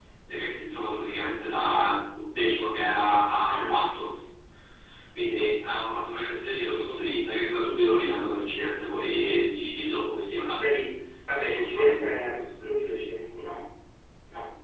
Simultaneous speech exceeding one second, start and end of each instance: 11.3-13.0

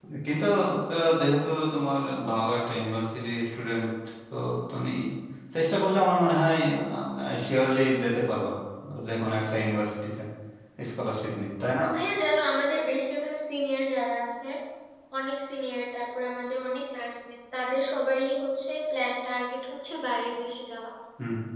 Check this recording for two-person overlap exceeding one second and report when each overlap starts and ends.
none

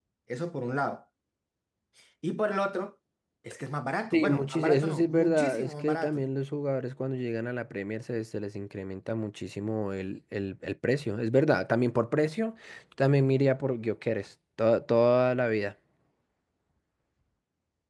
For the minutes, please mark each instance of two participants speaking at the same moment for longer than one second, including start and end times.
4.1-6.2

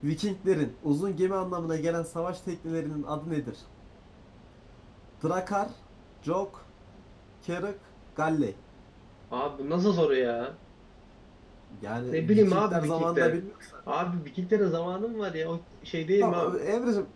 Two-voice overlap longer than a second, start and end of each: 12.1-13.4

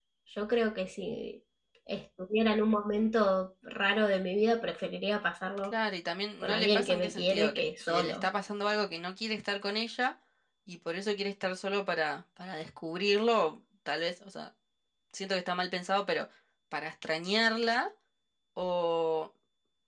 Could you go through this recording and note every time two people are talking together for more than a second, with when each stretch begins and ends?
6.4-8.2

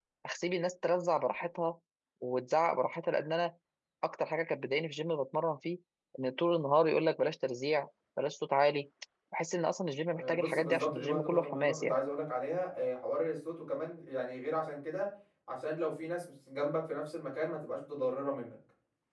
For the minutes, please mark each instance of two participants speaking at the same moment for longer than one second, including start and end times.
10.2-12.0

